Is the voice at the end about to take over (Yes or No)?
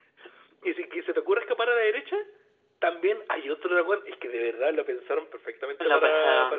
No